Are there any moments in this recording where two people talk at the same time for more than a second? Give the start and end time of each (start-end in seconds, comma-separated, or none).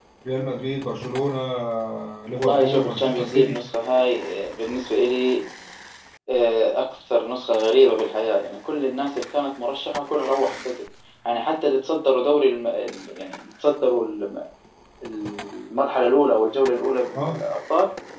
2.4-3.6